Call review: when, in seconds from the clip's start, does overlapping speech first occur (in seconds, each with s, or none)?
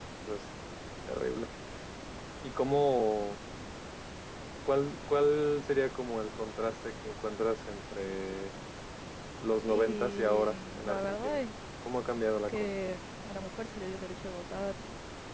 9.6 s